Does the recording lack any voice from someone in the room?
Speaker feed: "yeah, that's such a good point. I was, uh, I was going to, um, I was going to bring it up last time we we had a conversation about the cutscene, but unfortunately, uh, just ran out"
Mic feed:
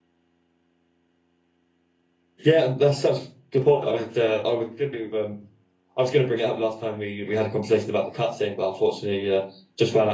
Yes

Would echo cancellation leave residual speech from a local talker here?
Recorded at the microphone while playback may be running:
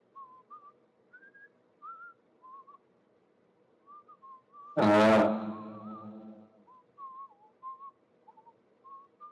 Yes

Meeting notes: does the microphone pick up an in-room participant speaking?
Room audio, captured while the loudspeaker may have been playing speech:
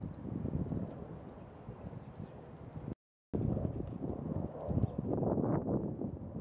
No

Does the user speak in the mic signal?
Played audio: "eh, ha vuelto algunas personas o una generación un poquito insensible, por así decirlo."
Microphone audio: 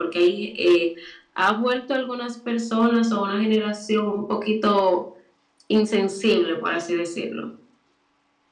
No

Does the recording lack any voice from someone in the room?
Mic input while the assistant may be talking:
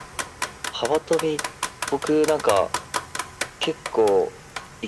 Yes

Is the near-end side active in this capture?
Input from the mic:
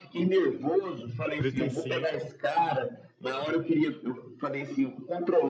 Yes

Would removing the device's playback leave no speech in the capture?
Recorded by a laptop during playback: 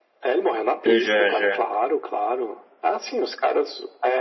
No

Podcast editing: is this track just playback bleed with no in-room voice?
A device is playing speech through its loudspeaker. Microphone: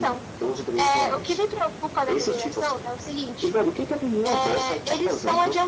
Yes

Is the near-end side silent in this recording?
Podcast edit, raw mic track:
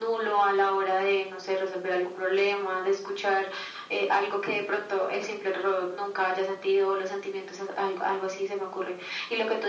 Yes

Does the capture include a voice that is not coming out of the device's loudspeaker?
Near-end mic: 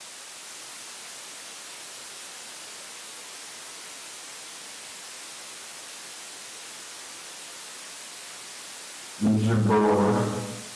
Yes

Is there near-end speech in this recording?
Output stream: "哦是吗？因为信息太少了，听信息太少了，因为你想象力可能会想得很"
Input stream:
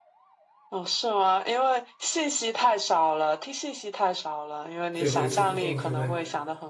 Yes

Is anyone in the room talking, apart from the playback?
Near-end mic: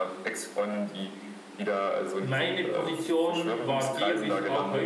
Yes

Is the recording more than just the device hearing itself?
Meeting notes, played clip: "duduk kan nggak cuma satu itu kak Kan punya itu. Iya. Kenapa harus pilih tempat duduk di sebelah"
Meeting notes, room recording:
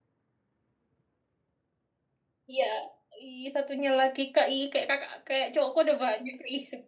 Yes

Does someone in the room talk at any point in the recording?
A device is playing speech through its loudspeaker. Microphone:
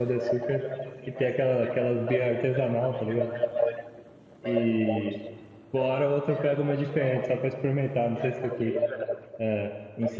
Yes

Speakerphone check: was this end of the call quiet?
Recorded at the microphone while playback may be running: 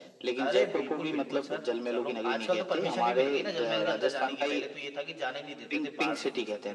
No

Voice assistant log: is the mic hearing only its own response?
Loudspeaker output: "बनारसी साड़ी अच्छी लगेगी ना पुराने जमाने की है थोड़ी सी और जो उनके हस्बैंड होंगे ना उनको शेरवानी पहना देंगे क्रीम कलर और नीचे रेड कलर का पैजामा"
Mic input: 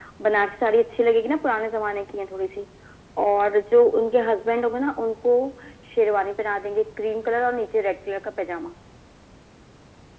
Yes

